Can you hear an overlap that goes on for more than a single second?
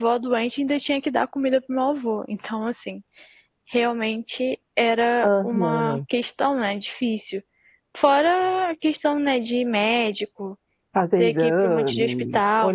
Yes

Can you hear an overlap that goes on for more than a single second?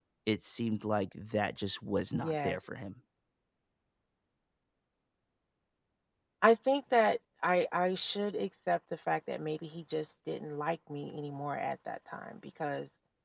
No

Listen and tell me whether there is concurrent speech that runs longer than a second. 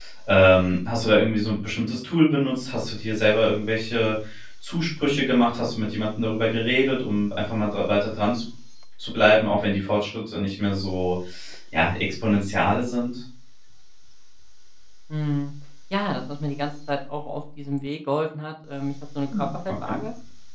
No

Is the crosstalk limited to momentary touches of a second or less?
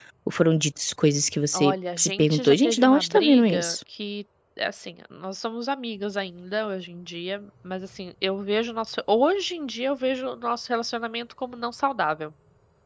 No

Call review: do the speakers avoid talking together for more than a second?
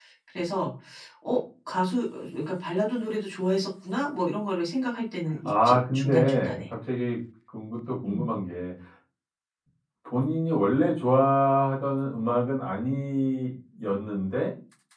No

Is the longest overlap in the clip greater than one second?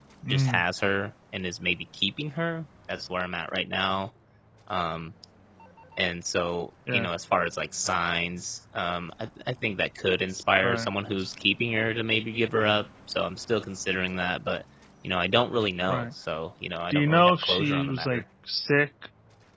Yes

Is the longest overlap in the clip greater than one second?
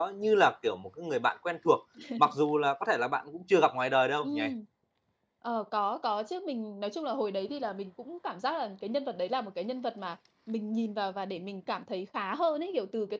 No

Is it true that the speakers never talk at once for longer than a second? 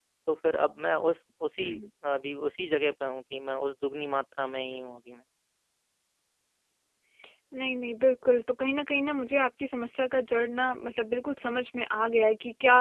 Yes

